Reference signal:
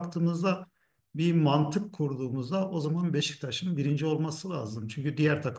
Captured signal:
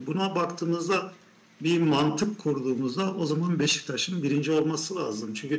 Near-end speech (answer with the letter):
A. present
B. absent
B